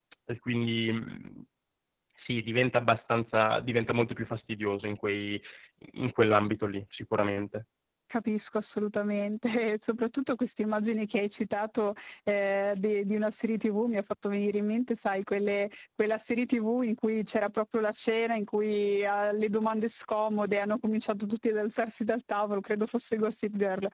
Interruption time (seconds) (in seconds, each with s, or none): none